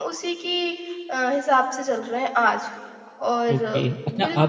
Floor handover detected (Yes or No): Yes